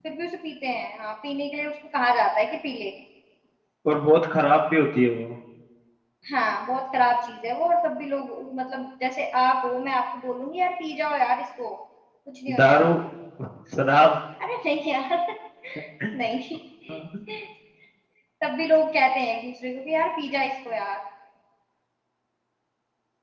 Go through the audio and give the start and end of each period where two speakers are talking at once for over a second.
none

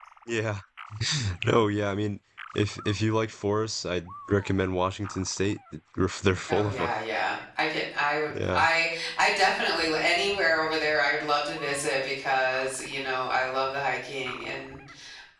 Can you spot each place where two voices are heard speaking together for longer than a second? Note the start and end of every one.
none

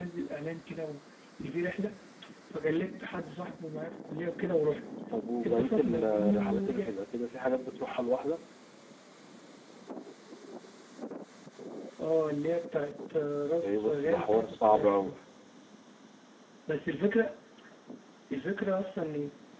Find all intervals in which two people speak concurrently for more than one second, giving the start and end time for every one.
5.4-6.9, 13.6-15.2

